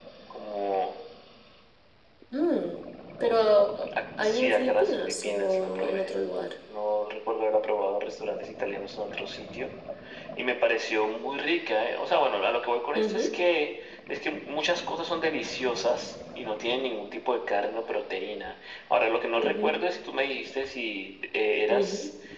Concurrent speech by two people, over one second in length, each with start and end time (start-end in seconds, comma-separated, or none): 4.2-6.1